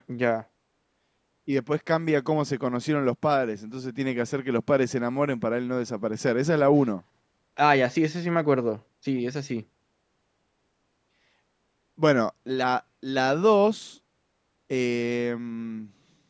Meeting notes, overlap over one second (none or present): none